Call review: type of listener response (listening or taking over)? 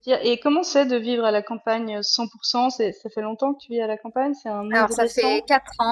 taking over